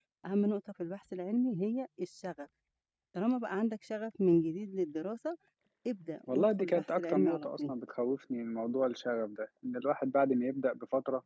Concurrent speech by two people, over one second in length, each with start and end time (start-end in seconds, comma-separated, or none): 6.3-7.7